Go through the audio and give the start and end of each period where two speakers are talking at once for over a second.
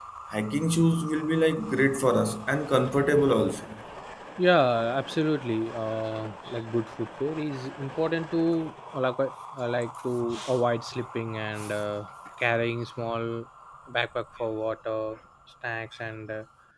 none

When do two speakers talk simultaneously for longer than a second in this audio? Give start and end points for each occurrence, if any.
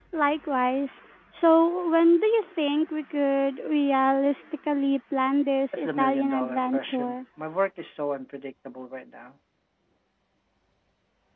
5.7-7.2

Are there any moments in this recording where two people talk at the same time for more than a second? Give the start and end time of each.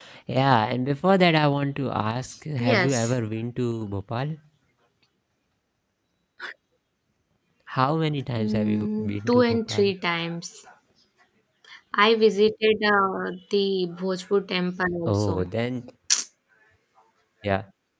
8.4-9.9

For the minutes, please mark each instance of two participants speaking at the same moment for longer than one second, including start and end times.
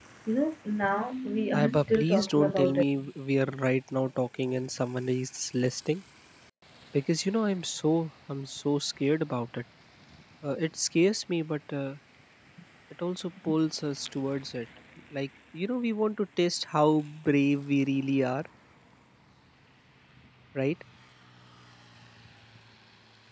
1.5-2.8

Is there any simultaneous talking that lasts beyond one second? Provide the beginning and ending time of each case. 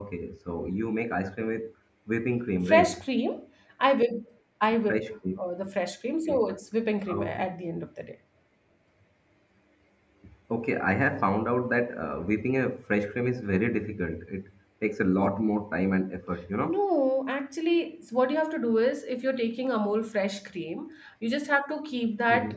none

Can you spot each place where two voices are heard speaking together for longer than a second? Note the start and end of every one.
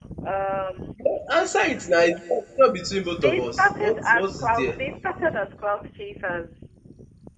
3.1-4.8

